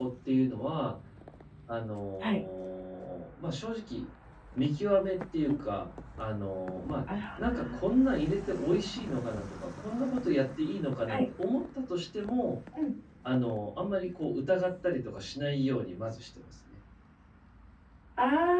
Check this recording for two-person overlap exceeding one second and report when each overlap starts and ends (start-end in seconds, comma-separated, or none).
none